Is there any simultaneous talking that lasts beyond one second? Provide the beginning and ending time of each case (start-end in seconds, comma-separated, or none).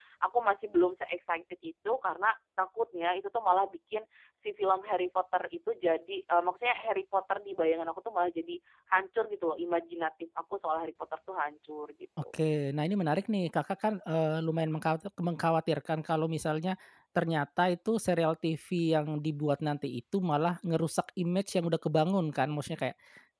none